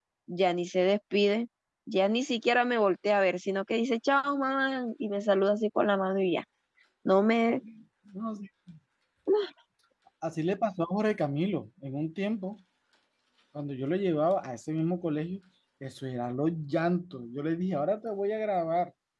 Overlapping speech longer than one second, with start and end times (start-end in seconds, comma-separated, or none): none